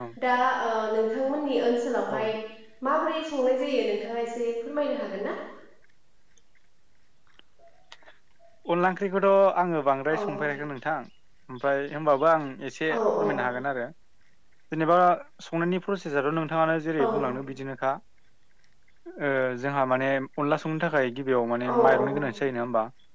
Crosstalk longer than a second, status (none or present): none